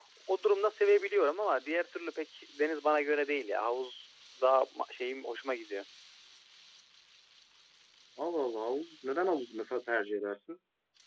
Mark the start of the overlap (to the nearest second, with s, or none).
none